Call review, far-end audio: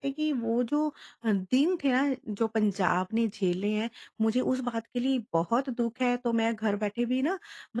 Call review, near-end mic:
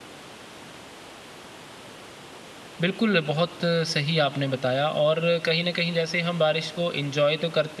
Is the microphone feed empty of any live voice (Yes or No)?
No